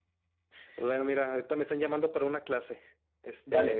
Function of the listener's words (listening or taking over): listening